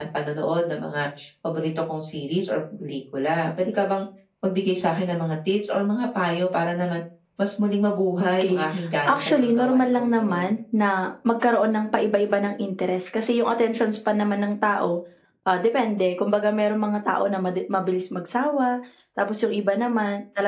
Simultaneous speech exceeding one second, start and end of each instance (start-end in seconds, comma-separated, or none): 9.0-10.5